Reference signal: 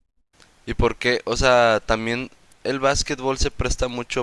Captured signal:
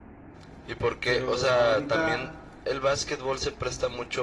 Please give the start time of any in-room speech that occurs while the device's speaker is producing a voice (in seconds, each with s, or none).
1.0 s